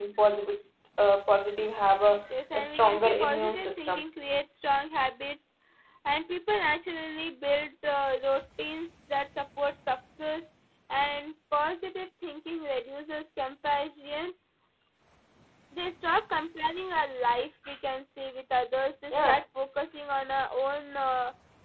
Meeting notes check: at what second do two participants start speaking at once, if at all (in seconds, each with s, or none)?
2.5 s